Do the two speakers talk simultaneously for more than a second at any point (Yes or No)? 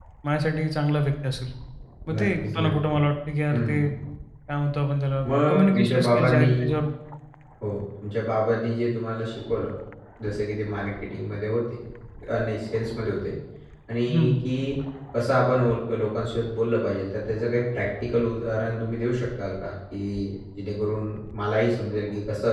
Yes